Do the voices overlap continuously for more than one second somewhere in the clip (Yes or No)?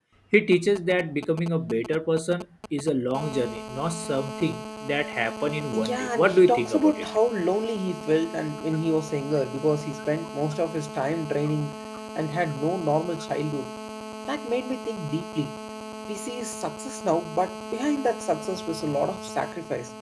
Yes